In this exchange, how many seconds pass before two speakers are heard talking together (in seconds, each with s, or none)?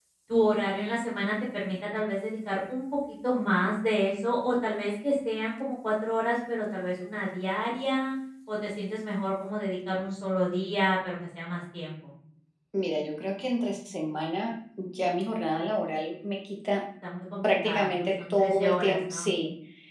17.4 s